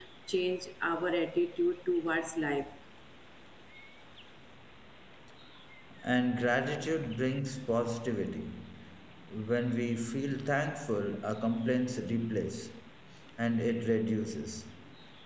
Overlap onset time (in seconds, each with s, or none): none